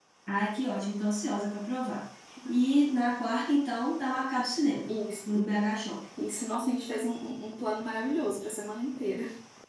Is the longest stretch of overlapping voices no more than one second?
Yes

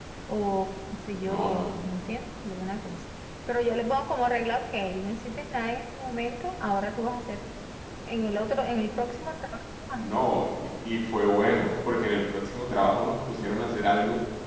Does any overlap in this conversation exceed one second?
No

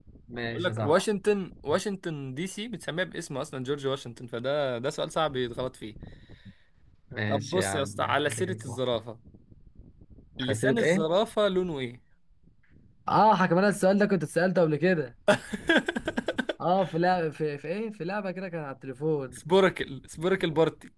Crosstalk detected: Yes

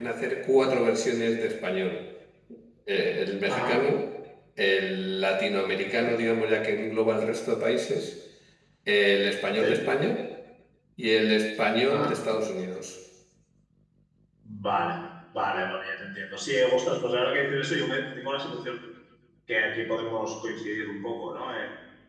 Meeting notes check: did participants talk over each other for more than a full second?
No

